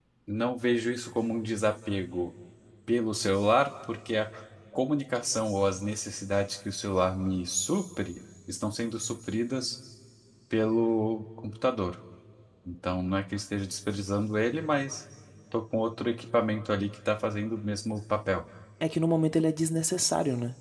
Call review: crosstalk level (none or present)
none